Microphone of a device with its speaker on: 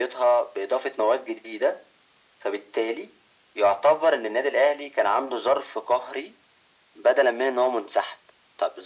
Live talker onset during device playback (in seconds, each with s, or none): none